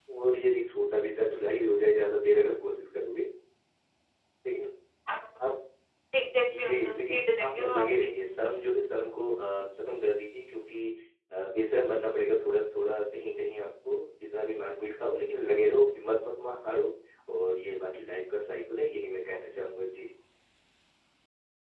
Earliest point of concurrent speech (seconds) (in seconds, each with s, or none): 6.5 s